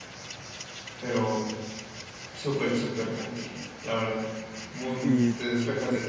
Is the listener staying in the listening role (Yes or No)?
No